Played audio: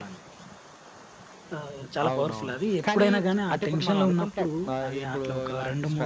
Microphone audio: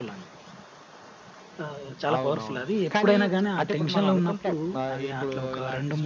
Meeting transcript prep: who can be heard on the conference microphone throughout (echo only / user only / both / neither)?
echo only